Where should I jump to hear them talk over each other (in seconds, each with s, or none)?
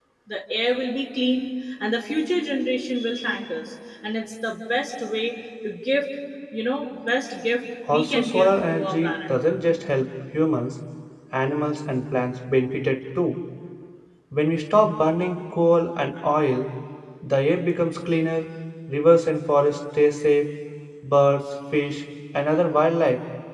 7.9 s